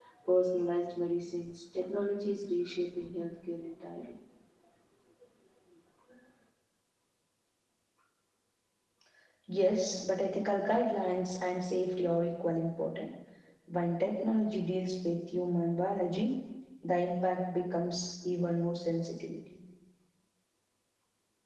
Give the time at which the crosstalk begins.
none

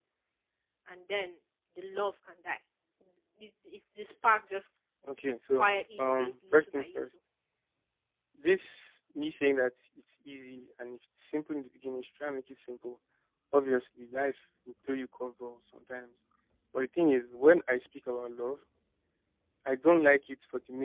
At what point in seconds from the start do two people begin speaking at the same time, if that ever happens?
5.5 s

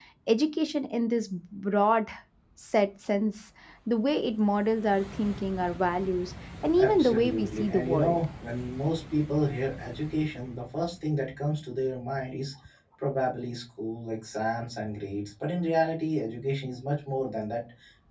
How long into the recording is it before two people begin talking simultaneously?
6.8 s

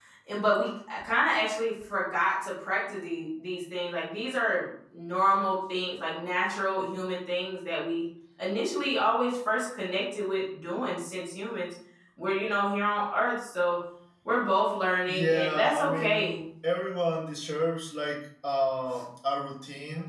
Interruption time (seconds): 15.1 s

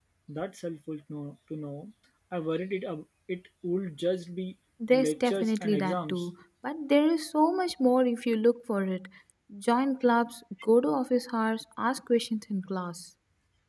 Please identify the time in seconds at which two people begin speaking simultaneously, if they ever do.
4.8 s

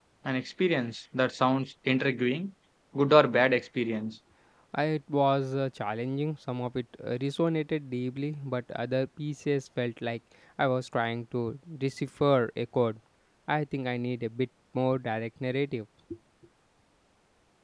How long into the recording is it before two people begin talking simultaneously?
none

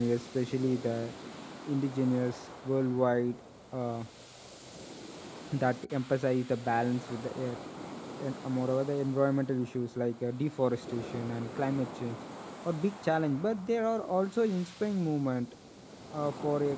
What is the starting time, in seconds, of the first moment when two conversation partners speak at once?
none

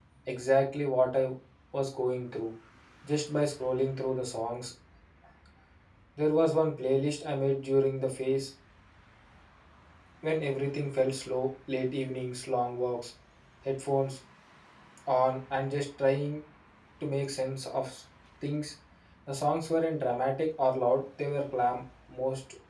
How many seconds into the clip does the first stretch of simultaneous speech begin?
none

